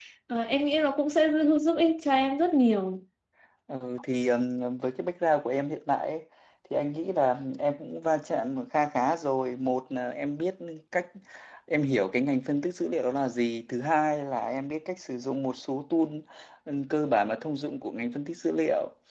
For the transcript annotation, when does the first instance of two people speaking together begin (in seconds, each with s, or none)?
none